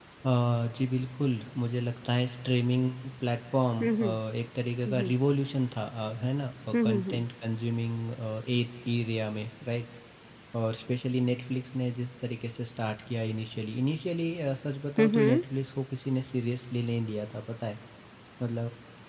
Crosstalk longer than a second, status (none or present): none